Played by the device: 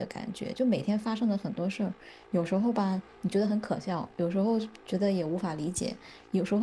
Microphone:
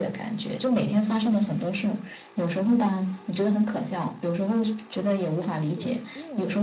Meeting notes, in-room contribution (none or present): present